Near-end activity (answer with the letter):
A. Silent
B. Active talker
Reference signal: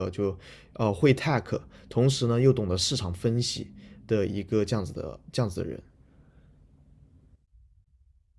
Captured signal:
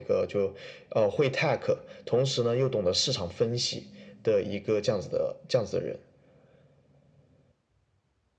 A